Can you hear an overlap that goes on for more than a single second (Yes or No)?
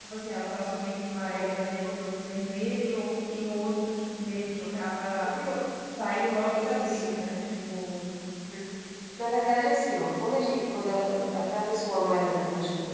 No